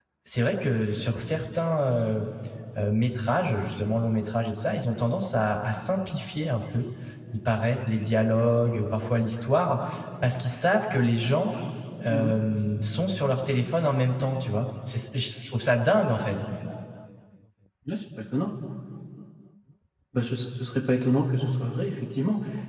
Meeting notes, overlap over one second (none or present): none